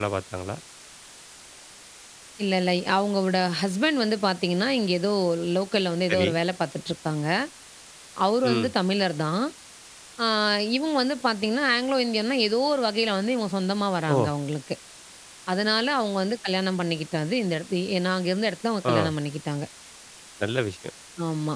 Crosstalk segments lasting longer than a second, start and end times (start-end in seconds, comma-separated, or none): none